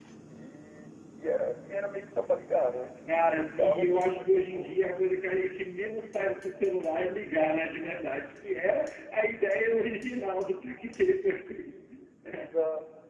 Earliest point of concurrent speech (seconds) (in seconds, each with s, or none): 3.1 s